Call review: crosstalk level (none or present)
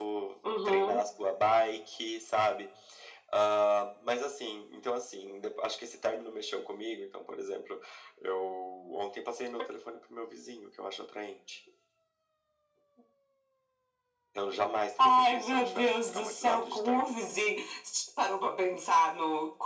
present